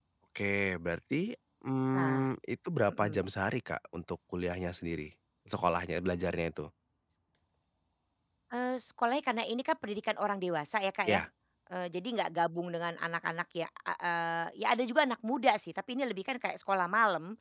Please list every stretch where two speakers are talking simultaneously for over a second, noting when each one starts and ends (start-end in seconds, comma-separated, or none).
none